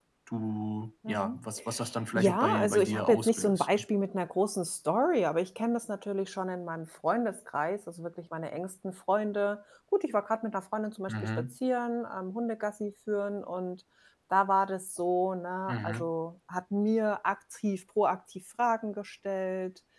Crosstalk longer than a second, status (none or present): present